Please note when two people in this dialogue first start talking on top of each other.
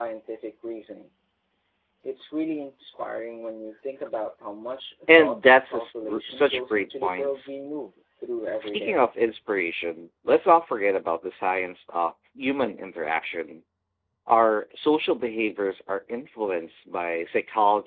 5.2 s

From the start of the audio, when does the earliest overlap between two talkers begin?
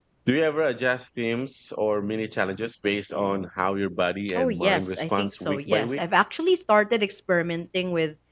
4.4 s

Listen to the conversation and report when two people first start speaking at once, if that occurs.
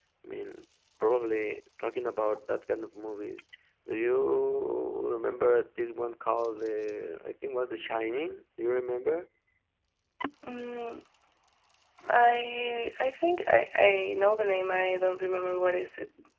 none

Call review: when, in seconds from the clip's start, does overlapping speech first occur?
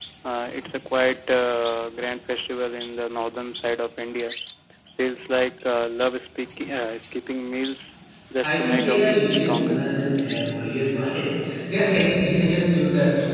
8.4 s

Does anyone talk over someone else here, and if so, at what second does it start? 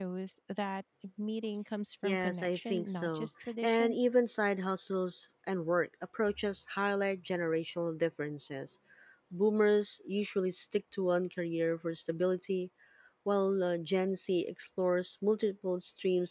2.0 s

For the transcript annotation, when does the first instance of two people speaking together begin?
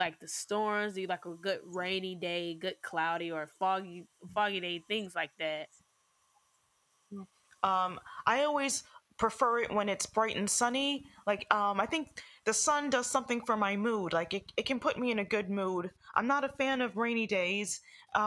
none

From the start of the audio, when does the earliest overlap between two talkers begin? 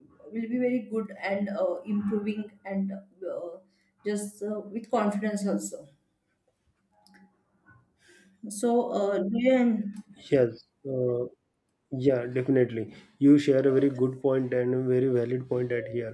none

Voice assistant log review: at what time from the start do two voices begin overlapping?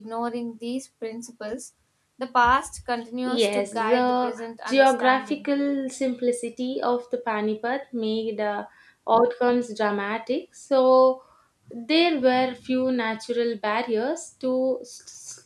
3.4 s

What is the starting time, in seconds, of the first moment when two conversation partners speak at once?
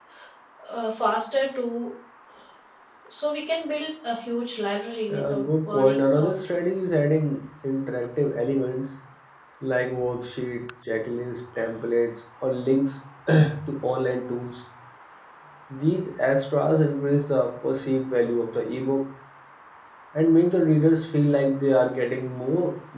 5.1 s

